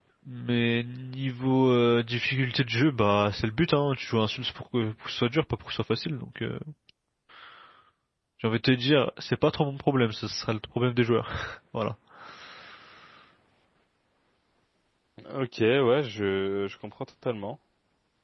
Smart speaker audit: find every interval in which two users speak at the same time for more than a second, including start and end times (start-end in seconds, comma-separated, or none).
none